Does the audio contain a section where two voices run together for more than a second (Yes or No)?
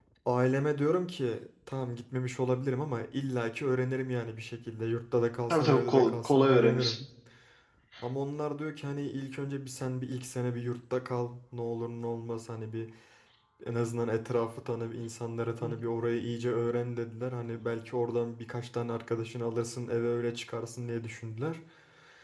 Yes